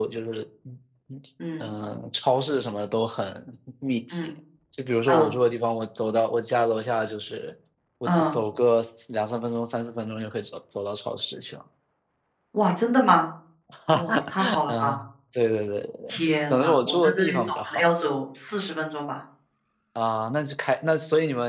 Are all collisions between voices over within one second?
No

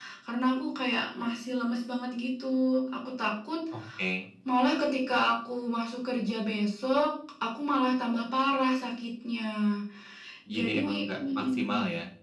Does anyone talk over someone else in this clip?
Yes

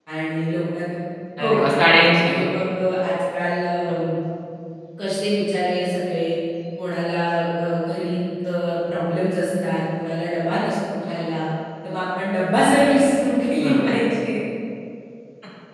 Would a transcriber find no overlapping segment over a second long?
Yes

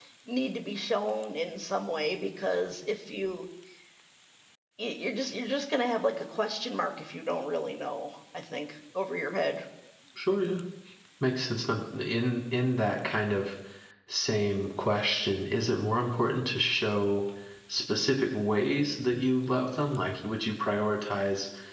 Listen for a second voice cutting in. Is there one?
No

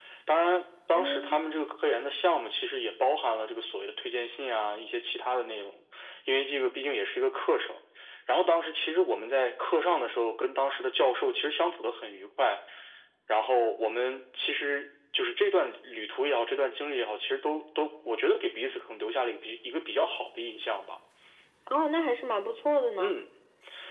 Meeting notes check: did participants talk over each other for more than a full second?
No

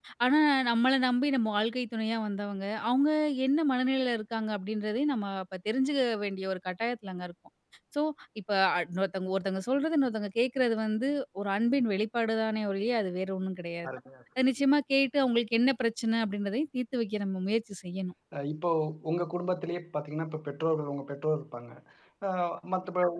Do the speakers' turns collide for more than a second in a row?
No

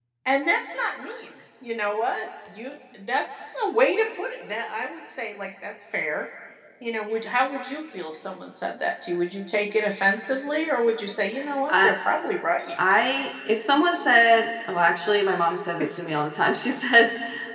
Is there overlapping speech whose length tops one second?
No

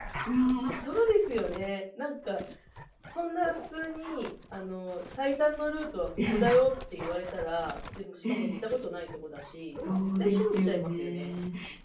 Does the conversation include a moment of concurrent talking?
Yes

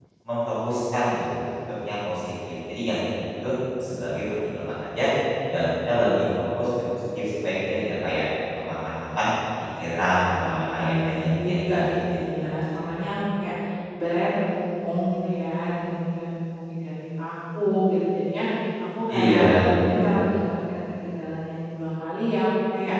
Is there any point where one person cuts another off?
Yes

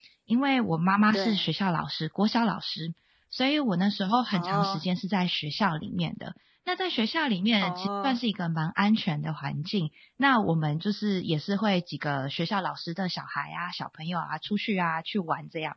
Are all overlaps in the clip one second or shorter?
Yes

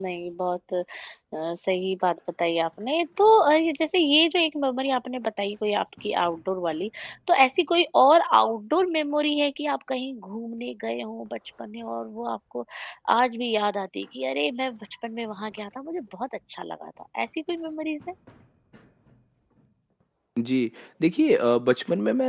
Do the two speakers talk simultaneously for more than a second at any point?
No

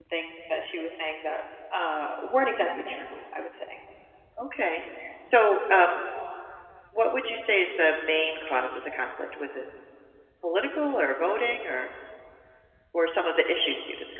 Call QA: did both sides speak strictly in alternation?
Yes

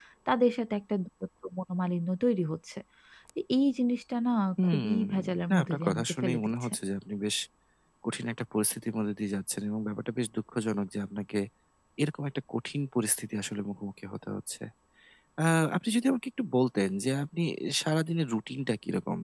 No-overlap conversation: No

